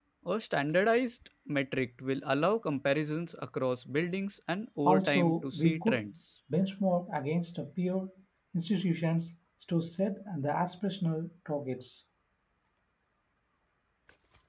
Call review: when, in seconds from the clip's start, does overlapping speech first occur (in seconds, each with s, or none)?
4.8 s